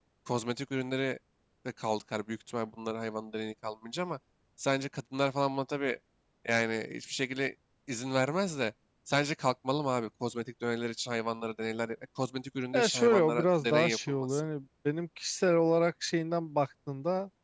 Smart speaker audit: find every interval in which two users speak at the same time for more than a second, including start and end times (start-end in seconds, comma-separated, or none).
12.7-14.4